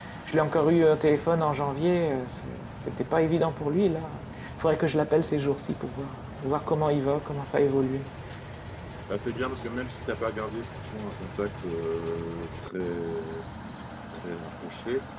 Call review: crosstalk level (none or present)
none